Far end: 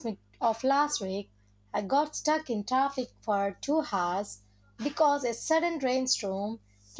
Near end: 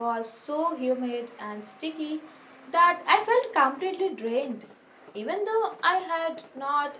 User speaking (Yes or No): Yes